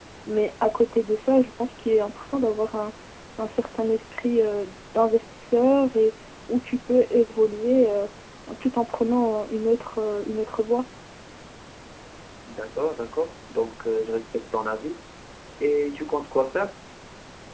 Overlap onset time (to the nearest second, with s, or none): none